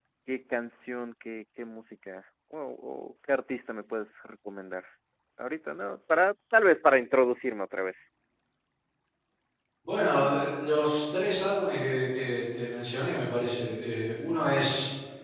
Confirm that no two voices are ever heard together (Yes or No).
Yes